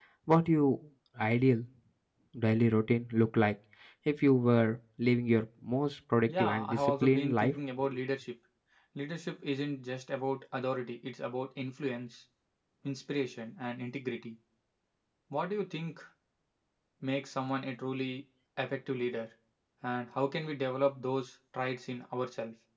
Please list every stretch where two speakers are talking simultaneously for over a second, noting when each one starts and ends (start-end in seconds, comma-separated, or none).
6.3-7.5